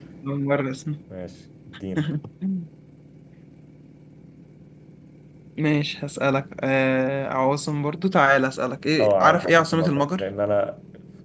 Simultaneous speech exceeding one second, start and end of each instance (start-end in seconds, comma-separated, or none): 9.0-10.2